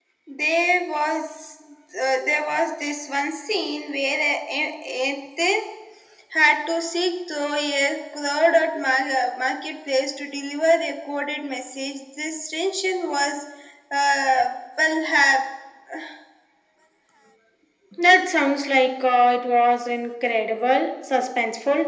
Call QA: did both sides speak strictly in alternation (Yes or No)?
Yes